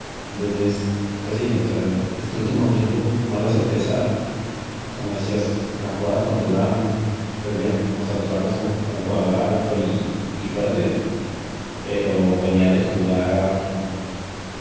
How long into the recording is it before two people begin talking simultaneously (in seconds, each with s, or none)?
none